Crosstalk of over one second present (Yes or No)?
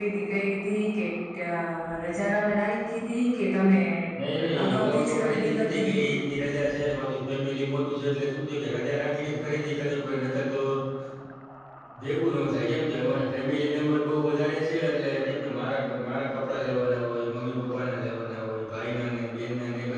Yes